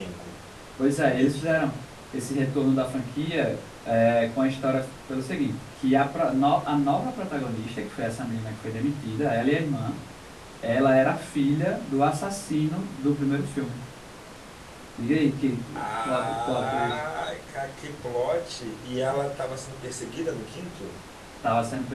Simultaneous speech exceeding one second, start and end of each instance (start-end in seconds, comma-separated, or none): 15.7-17.0